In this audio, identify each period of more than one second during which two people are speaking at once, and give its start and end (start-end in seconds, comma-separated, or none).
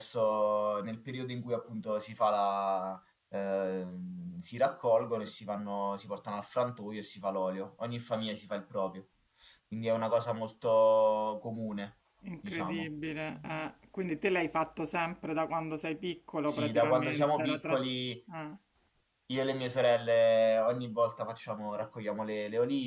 16.5-17.8